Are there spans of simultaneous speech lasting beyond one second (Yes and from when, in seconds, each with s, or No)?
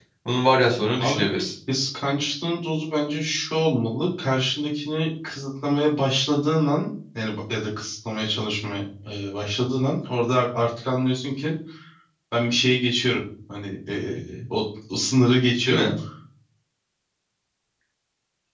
No